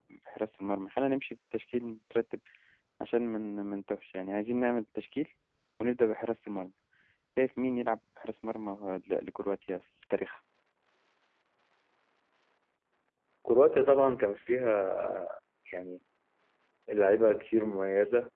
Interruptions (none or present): none